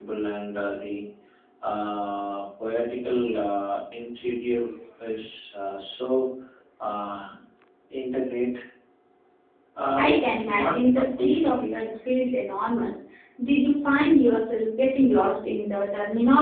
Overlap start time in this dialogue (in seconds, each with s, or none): 10.0 s